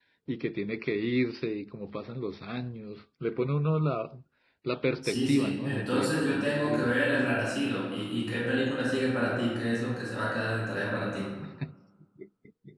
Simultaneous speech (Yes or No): Yes